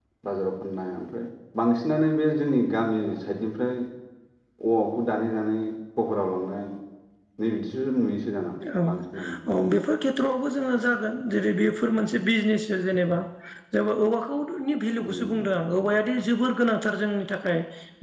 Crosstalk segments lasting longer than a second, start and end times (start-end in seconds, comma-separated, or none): none